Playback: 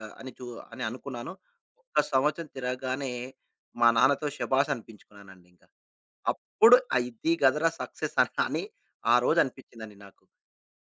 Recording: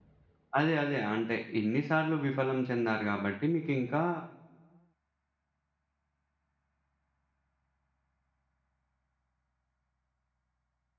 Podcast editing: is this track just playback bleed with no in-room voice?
No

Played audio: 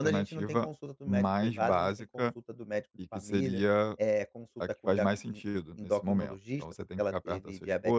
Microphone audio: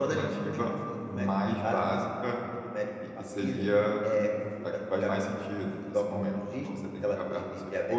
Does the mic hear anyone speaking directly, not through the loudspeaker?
No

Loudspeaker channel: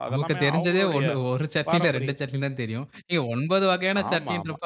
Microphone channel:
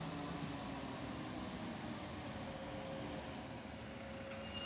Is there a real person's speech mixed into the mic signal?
No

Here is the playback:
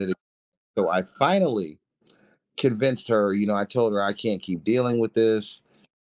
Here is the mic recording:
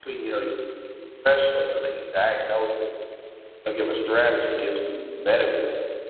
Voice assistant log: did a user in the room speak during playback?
Yes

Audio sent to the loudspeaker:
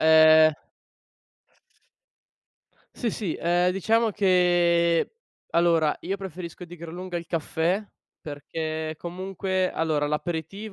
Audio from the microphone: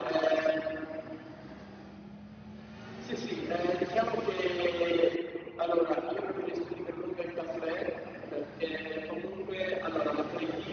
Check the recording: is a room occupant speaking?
No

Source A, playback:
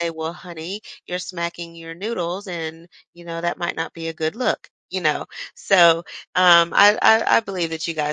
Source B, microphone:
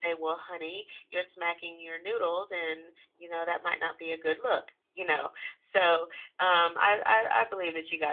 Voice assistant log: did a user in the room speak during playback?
No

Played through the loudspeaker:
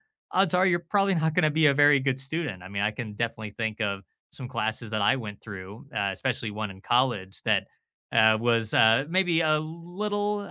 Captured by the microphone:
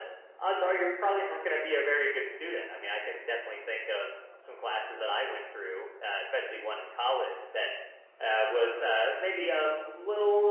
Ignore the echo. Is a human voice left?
No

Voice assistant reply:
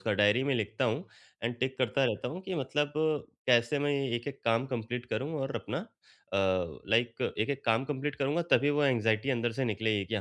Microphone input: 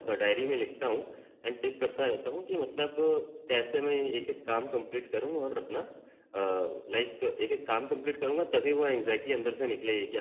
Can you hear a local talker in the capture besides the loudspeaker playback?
No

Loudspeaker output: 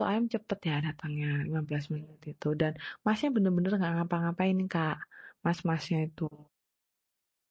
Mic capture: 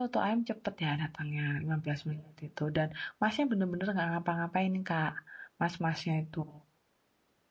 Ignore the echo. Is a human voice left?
No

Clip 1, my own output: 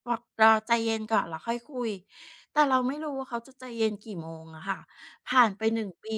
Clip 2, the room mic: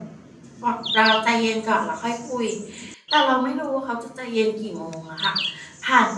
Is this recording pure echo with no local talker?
Yes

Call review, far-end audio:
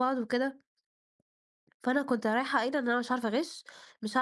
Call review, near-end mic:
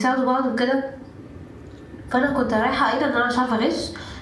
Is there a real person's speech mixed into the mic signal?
No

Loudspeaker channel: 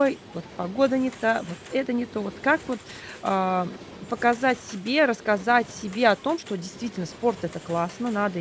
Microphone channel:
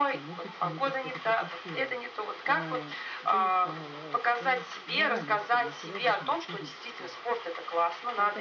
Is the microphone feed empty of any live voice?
No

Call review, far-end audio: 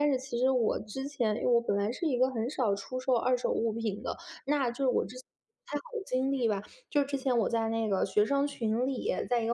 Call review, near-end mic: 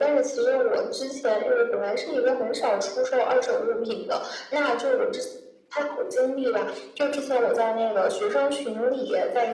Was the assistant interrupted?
No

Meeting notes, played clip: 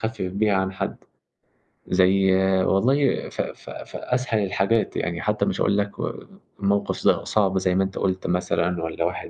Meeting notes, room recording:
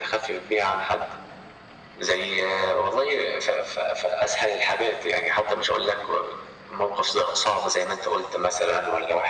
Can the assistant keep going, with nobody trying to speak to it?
Yes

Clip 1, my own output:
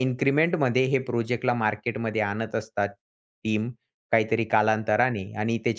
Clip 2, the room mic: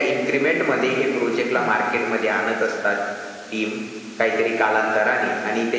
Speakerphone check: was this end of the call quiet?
No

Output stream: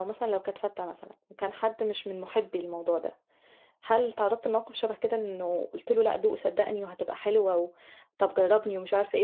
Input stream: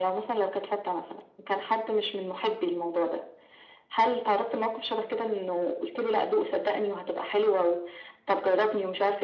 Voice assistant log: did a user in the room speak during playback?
No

